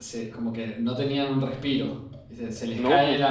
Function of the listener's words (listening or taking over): listening